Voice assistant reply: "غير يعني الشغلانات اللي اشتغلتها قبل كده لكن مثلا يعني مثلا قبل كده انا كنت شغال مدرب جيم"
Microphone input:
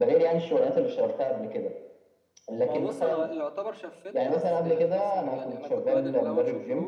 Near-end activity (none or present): present